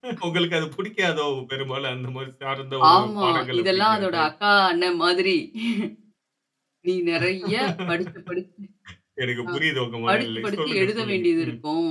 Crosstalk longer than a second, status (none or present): present